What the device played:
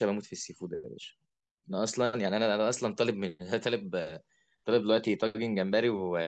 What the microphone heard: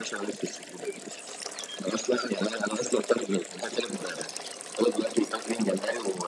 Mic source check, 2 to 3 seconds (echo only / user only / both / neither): echo only